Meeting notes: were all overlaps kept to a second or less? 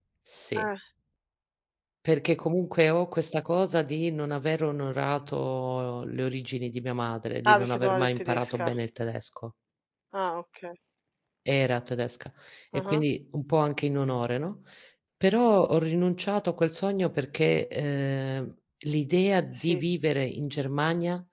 No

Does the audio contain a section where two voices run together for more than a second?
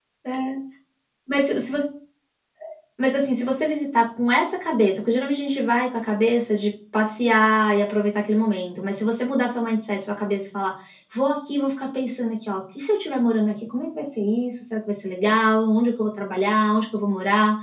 No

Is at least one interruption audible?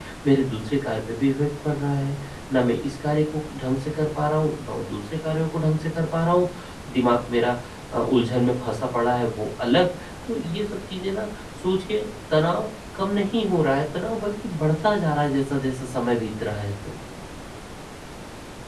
No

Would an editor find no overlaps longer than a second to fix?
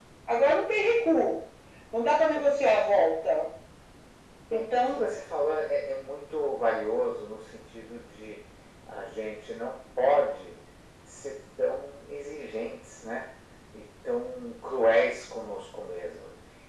Yes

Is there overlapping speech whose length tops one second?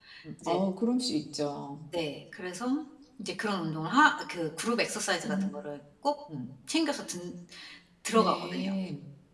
No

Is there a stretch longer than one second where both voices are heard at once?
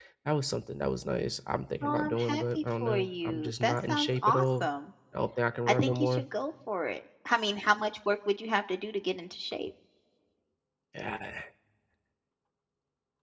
Yes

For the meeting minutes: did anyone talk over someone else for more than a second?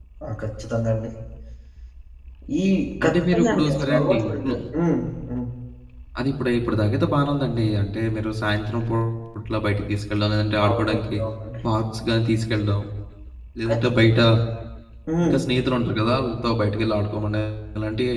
Yes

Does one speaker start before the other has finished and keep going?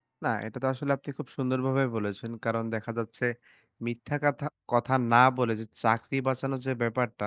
No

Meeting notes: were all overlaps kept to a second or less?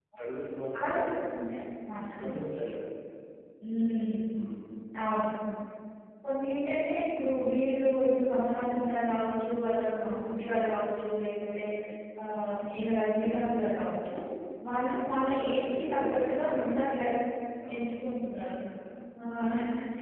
No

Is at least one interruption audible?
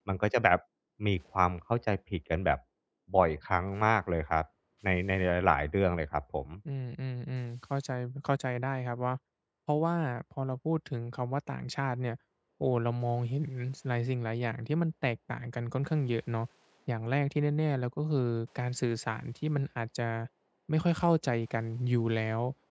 No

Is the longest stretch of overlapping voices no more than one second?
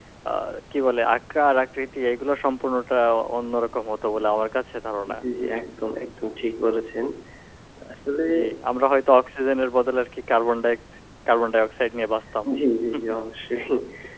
Yes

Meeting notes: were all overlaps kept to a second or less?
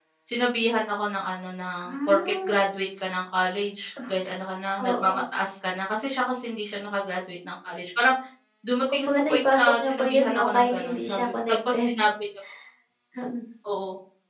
No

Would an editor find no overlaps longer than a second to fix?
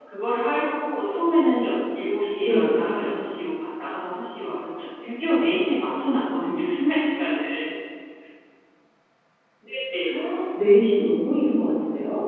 Yes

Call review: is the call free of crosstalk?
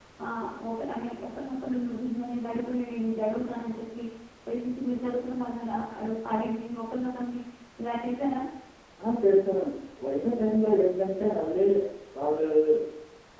Yes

